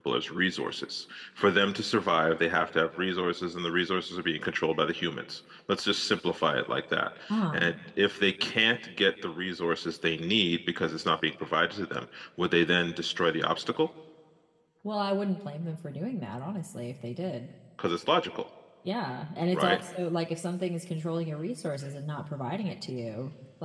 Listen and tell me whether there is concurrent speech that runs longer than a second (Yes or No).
No